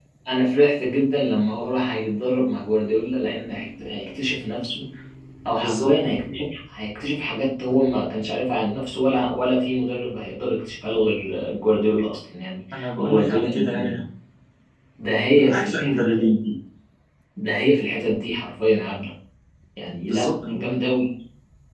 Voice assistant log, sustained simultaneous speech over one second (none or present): present